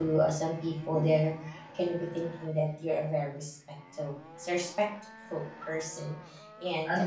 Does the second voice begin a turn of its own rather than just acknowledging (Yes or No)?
Yes